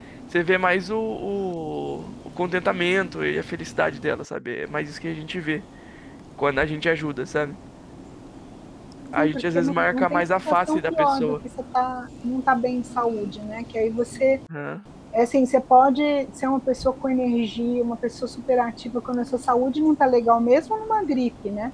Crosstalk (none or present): present